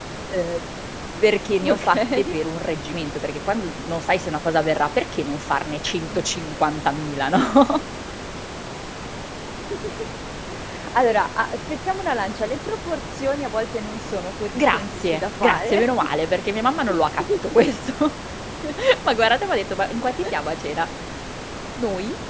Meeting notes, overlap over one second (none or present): present